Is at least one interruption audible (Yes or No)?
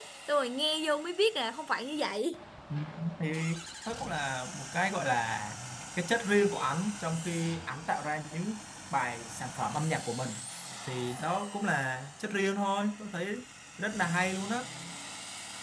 No